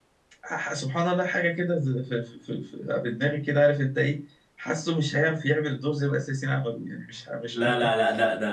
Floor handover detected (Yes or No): Yes